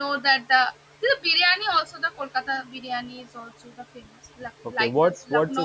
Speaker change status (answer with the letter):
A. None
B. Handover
B